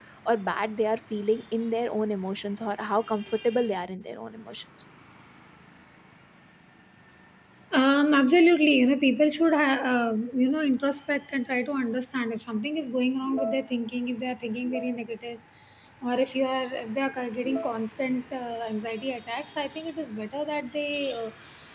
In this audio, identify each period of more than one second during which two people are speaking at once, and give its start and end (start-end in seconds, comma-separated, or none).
none